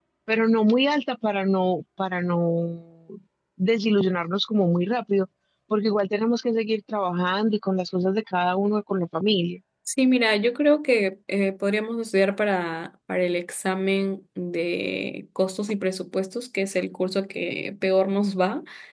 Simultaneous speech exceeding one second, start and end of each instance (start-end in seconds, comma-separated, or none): none